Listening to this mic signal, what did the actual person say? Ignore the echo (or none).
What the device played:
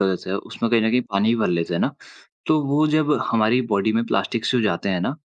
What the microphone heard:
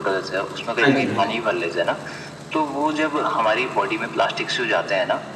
हाँ जी, हाँ जी।